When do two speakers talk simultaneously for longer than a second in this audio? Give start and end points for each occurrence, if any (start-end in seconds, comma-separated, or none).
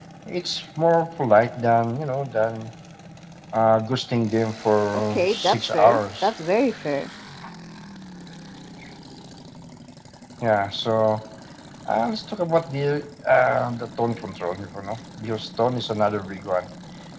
4.9-6.3